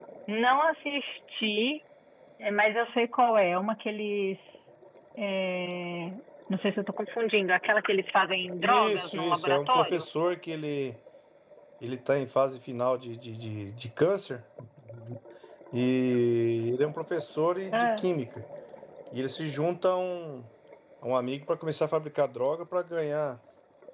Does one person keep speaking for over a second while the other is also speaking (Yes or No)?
Yes